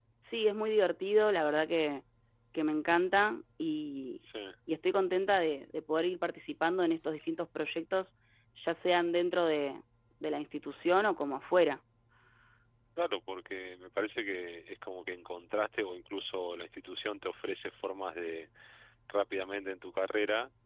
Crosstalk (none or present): none